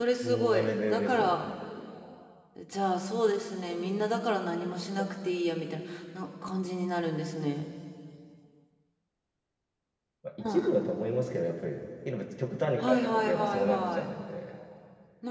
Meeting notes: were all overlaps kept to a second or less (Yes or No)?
No